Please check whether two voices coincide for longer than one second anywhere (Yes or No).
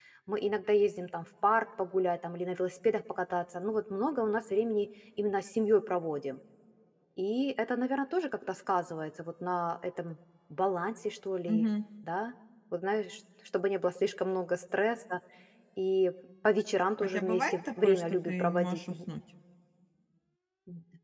Yes